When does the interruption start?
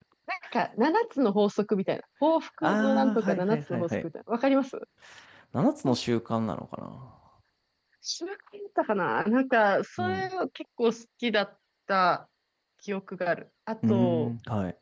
3 s

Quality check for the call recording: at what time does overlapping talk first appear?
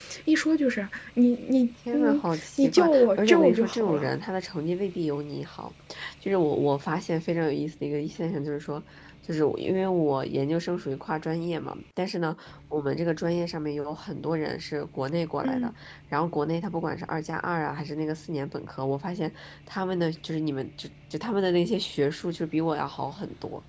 2 s

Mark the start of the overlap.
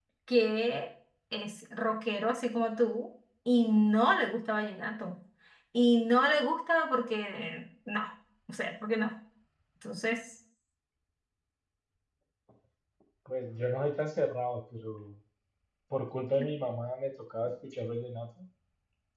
none

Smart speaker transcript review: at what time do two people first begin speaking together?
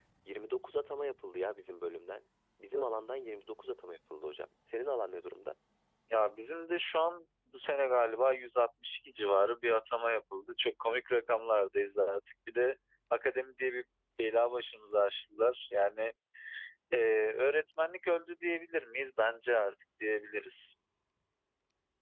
none

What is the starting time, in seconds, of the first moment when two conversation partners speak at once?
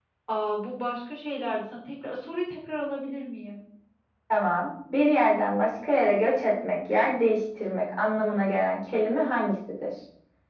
none

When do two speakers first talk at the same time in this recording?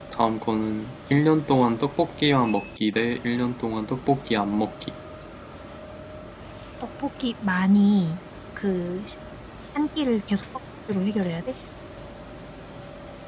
none

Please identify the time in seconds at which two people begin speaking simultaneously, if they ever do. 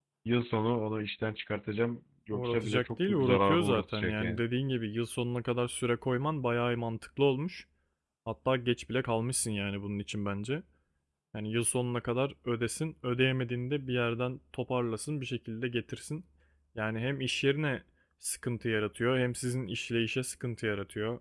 2 s

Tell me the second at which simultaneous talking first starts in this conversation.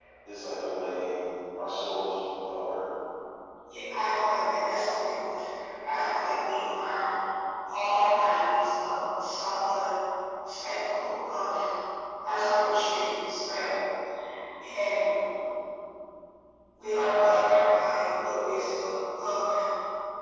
none

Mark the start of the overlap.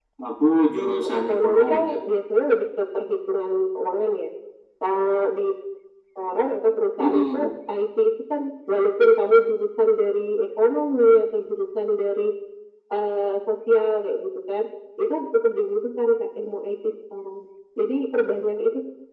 1 s

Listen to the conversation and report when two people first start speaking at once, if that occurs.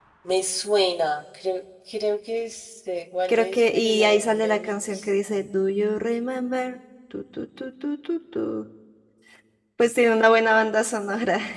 3 s

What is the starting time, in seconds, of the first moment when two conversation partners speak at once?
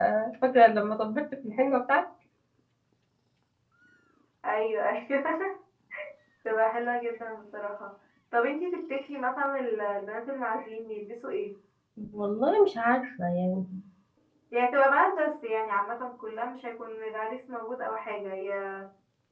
none

